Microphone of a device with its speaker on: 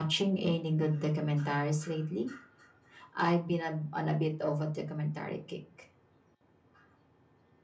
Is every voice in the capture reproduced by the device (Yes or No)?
Yes